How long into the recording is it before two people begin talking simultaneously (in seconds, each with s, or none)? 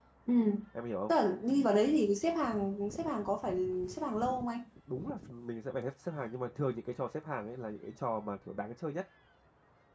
none